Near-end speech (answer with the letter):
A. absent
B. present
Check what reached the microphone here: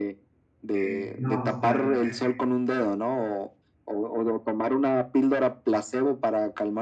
B